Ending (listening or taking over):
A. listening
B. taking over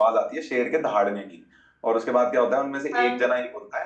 A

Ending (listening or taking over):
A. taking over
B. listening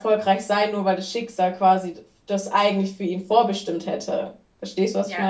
A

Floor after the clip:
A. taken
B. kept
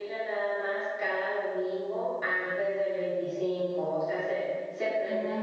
B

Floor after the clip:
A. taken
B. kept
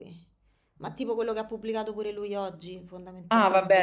A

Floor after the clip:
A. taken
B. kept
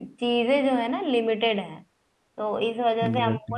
B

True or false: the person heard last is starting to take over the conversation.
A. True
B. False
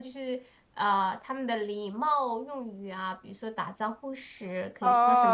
A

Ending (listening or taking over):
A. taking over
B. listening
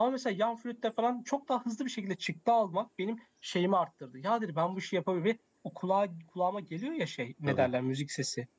B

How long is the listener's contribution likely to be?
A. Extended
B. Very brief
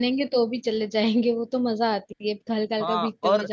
A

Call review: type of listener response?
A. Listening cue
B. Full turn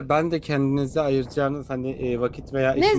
B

